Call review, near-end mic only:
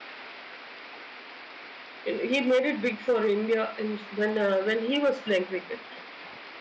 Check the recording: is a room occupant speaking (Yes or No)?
Yes